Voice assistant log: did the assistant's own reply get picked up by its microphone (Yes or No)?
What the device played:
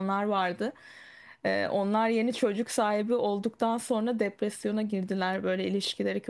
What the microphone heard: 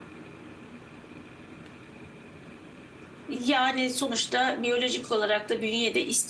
No